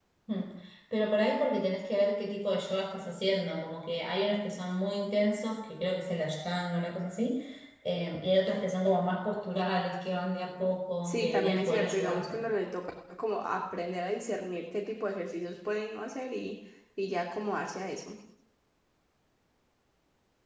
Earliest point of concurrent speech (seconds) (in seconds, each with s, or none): 11.1 s